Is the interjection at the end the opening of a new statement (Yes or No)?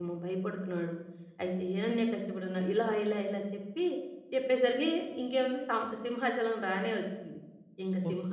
No